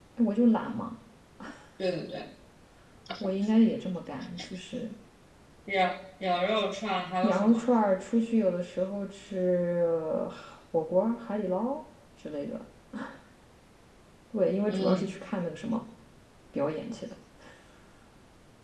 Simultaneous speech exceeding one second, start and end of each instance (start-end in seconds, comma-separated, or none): none